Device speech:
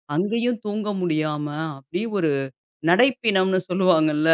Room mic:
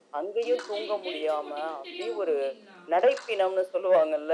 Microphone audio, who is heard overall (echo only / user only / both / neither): both